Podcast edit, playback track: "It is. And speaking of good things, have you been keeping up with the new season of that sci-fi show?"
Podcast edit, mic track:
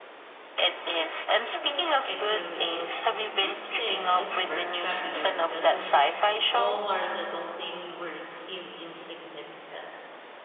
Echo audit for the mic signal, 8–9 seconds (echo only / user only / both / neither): user only